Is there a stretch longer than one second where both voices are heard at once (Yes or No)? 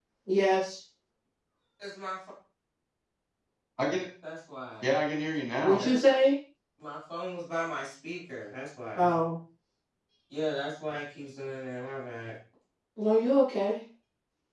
No